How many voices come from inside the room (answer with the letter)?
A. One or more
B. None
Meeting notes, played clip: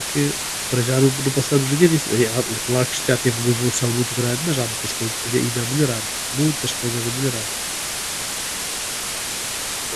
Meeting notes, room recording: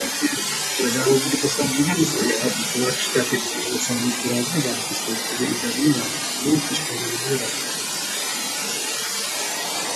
B